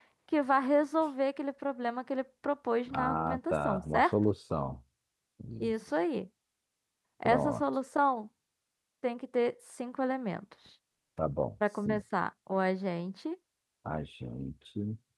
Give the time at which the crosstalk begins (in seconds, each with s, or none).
2.9 s